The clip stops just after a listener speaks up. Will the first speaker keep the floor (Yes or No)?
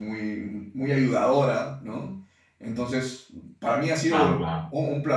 Yes